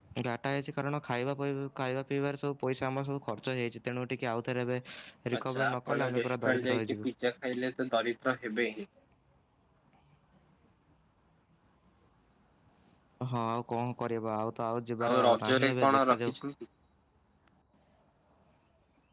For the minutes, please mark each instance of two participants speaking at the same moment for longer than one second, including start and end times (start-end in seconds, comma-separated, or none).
5.4-7.1, 15.1-16.3